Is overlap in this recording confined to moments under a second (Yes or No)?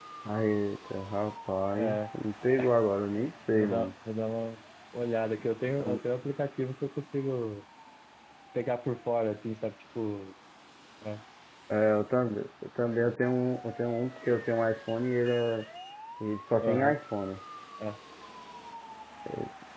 Yes